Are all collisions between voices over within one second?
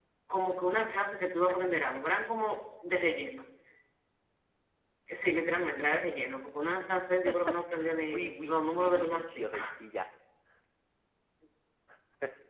No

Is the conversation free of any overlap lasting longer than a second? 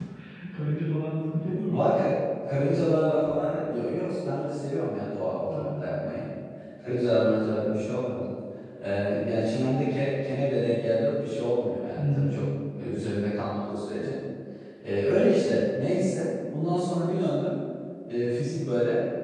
Yes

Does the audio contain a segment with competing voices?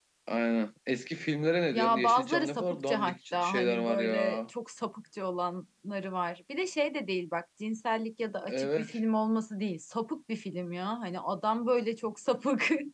Yes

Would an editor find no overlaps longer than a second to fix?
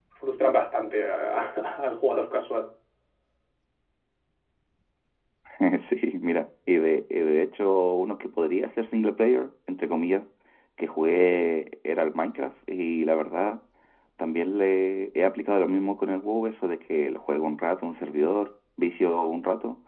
Yes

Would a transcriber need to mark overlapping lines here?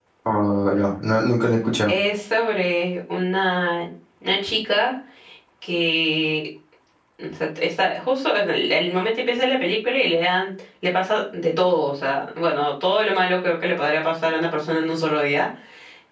No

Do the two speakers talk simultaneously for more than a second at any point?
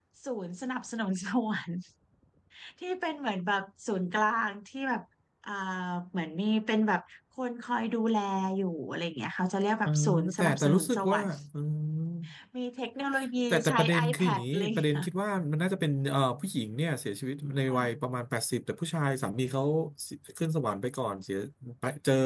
Yes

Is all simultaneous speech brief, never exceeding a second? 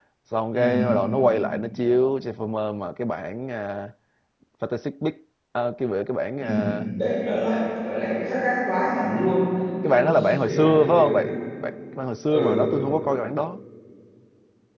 No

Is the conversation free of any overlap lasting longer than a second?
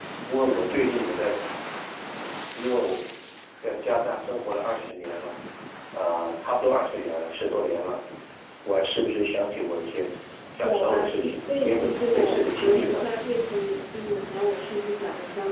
No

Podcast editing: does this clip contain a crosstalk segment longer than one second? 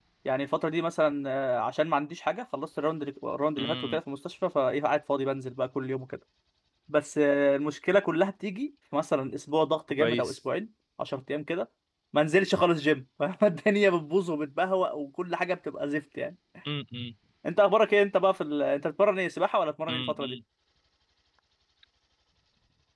No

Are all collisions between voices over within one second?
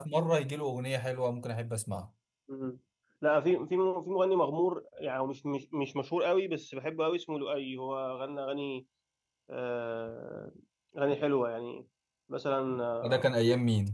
Yes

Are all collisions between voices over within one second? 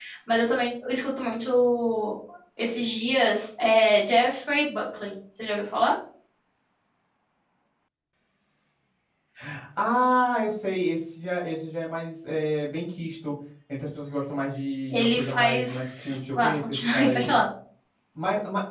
No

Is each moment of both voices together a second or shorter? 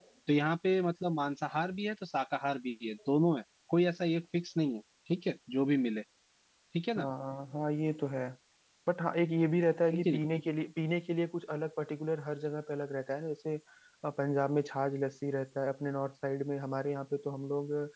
Yes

